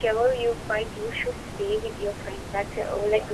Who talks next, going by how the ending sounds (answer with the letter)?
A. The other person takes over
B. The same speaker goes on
B